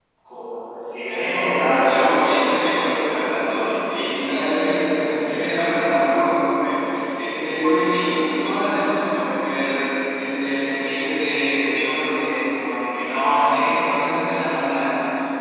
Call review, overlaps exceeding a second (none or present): present